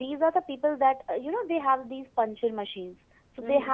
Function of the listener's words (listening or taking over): listening